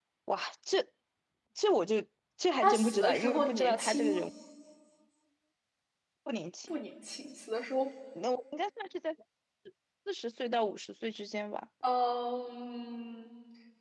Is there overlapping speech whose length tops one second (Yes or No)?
Yes